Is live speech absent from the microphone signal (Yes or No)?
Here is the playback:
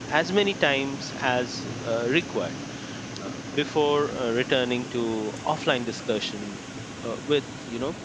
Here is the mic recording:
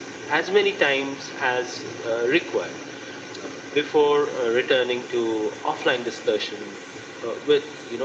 Yes